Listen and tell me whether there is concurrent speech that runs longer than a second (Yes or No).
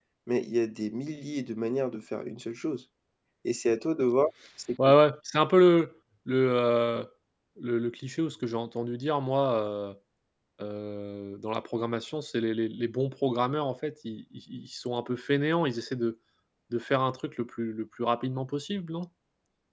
No